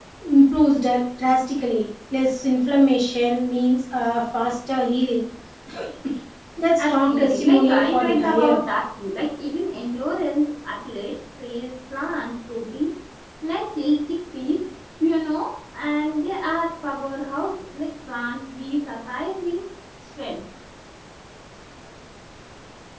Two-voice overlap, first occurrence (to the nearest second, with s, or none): 7 s